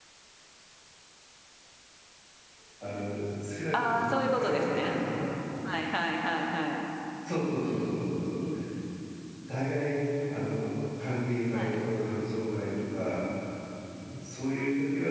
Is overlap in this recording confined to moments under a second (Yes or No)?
No